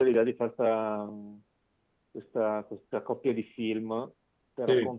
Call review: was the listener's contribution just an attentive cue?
Yes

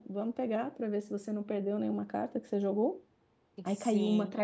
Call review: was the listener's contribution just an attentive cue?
Yes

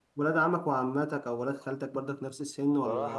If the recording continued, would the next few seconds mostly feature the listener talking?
Yes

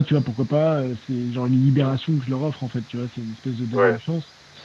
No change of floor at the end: Yes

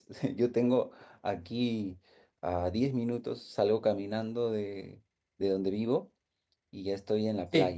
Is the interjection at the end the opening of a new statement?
No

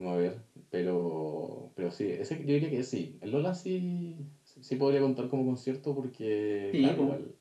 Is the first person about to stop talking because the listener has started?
Yes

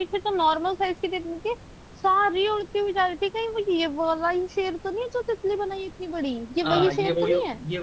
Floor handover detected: Yes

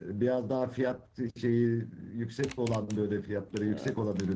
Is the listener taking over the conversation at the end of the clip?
No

